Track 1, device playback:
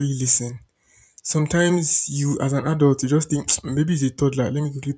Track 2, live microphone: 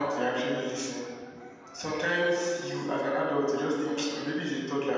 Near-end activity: none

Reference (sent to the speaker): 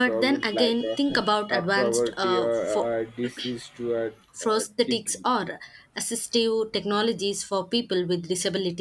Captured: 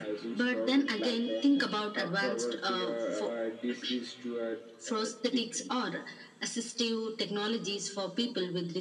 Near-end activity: none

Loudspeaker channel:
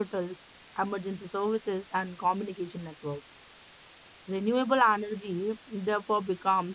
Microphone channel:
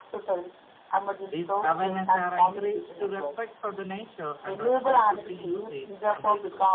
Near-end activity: present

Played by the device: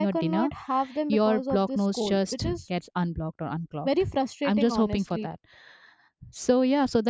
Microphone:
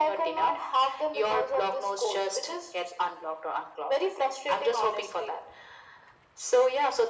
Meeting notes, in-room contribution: none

